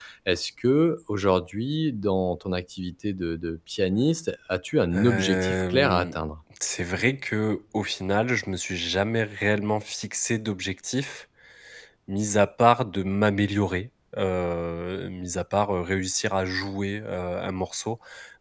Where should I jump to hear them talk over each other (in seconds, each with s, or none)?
4.9 s